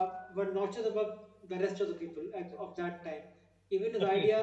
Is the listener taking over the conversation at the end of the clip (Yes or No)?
No